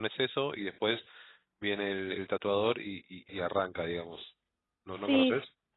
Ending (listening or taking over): taking over